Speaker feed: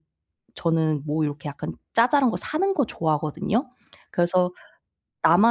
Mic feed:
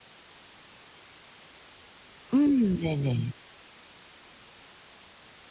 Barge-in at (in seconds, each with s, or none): 2.3 s